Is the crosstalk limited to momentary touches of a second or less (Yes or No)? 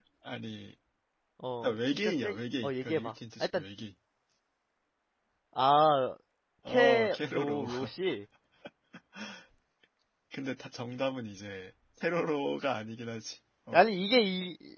No